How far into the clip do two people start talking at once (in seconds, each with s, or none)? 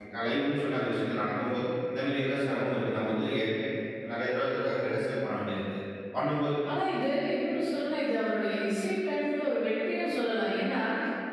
none